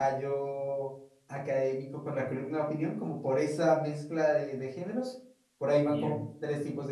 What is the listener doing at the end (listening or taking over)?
listening